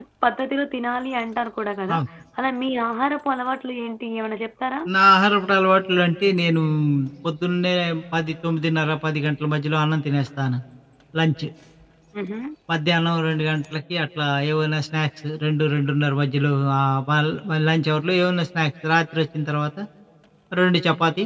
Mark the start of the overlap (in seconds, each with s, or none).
none